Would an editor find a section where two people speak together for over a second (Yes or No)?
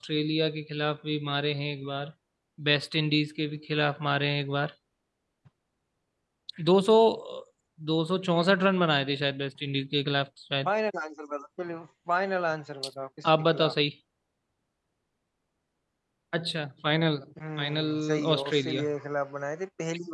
Yes